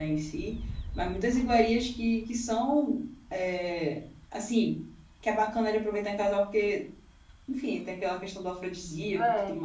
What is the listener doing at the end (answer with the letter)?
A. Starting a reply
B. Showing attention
A